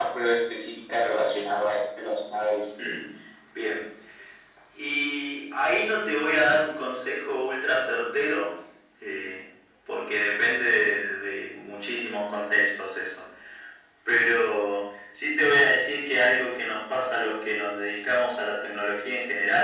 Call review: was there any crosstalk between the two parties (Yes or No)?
No